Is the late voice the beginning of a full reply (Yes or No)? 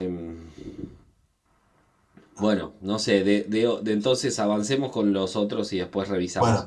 Yes